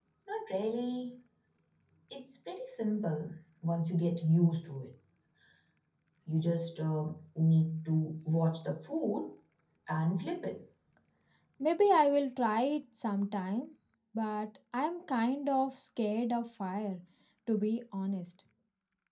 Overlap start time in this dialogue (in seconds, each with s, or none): none